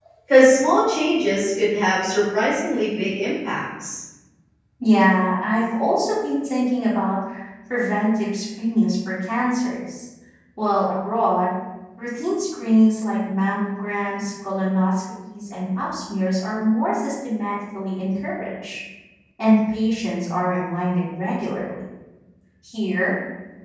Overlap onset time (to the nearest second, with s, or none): none